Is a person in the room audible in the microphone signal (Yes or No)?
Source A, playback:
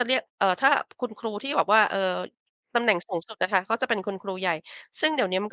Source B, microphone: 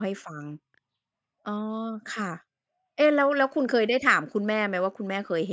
Yes